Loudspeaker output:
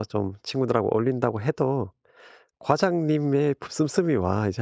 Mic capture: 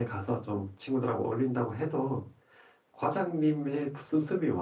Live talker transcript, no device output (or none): none